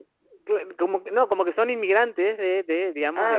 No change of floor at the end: No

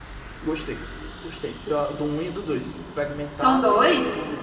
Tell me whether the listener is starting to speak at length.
No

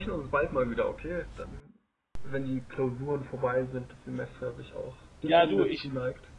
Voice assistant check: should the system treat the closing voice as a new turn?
Yes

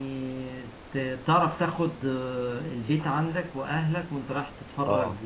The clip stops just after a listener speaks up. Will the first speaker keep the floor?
Yes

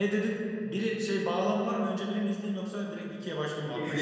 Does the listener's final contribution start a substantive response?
Yes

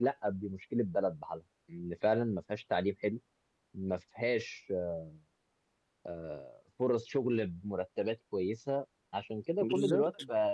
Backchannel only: Yes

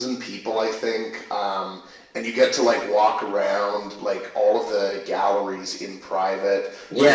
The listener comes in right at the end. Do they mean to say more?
Yes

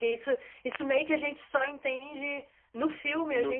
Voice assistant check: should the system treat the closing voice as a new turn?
No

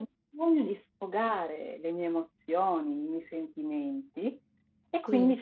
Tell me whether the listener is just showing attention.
Yes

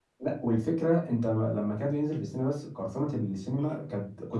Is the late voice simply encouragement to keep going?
Yes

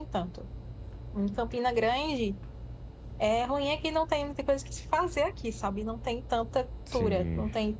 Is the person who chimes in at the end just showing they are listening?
Yes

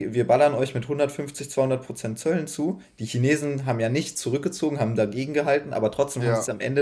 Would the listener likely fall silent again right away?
Yes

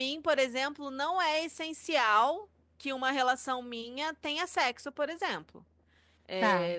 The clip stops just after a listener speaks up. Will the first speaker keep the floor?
Yes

